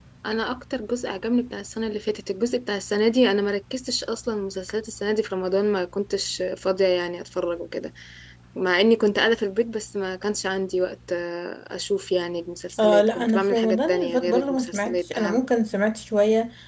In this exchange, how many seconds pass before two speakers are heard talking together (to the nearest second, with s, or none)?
13 s